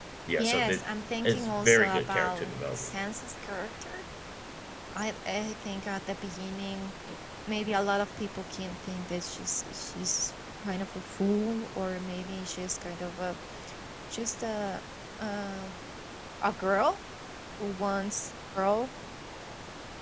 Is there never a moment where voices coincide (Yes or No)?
No